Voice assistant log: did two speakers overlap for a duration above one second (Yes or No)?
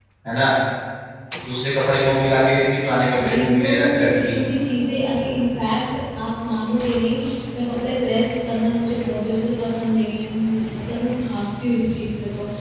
Yes